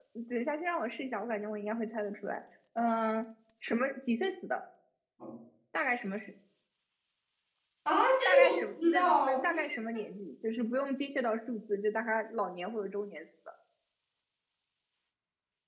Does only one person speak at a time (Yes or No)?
No